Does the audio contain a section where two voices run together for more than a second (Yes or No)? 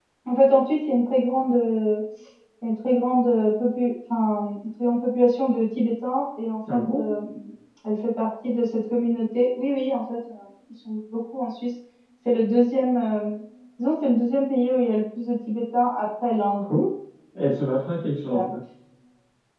No